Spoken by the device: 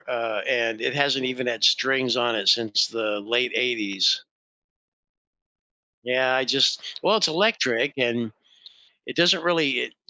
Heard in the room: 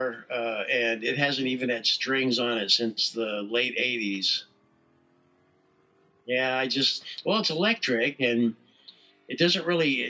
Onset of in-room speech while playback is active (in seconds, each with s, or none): none